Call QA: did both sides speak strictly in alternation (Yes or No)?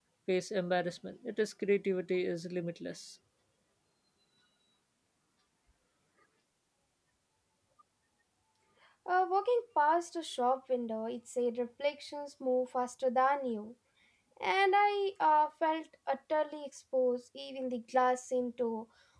Yes